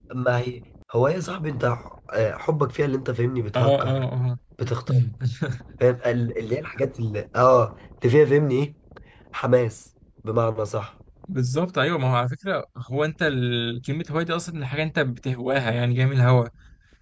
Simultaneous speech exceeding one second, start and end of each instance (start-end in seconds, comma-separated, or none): none